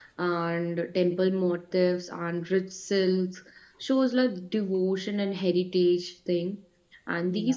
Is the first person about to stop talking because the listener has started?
No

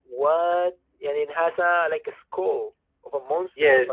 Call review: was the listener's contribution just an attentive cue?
No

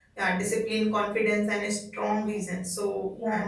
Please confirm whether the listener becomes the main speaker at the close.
No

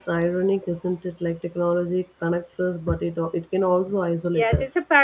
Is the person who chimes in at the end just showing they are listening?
No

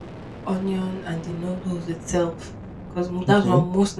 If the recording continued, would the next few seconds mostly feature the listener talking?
No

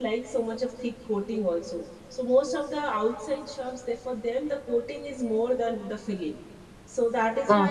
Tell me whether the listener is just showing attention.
Yes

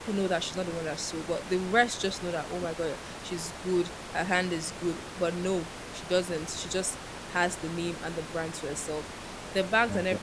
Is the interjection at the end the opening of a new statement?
No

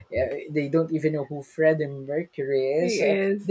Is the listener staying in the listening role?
Yes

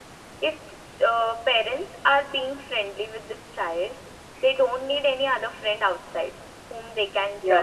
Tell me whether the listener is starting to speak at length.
No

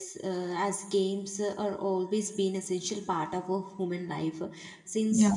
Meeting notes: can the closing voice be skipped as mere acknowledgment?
Yes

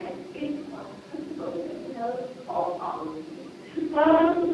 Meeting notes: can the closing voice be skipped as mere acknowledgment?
No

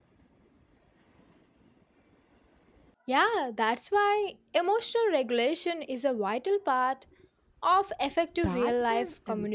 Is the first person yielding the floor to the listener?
Yes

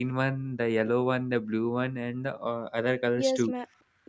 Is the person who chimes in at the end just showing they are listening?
No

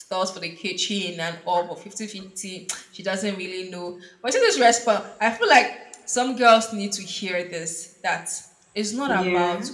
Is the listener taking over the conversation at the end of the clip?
No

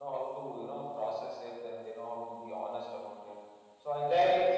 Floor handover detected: No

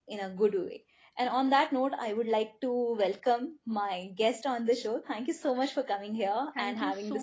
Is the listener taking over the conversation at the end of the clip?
Yes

